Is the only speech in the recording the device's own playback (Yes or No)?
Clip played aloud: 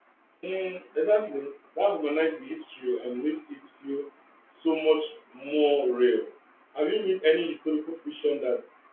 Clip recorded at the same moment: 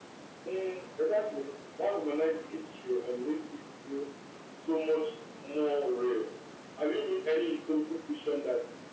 Yes